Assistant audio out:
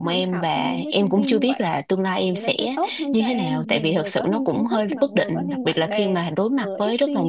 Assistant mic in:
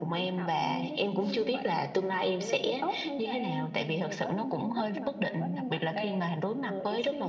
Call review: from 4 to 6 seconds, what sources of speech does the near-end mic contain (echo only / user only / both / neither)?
echo only